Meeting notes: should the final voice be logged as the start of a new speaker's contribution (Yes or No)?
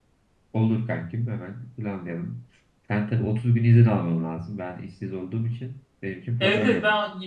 Yes